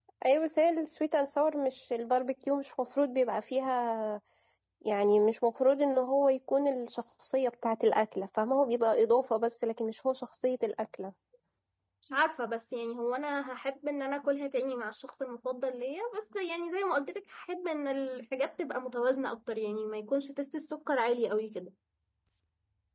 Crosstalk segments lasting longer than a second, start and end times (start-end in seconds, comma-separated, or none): none